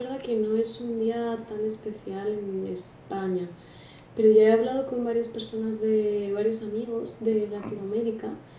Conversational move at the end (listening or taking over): listening